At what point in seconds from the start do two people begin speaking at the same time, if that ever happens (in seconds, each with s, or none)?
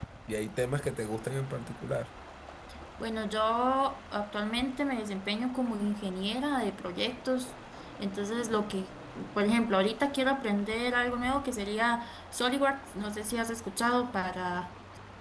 none